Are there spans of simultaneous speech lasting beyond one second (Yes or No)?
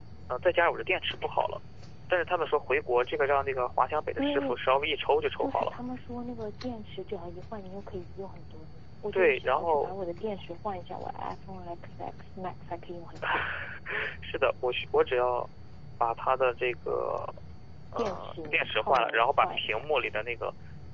Yes